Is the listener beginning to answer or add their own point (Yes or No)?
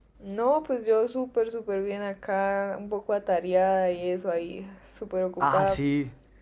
Yes